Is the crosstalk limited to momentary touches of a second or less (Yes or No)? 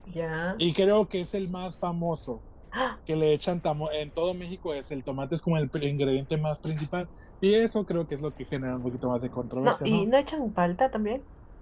Yes